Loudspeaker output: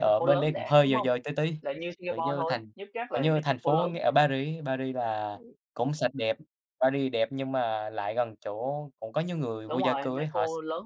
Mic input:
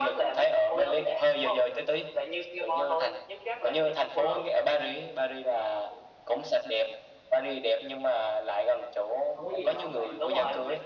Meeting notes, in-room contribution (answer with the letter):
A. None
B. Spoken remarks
B